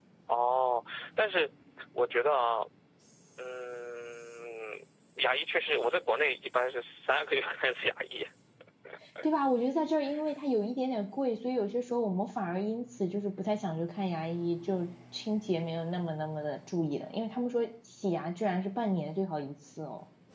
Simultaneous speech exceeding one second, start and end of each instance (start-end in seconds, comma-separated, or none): none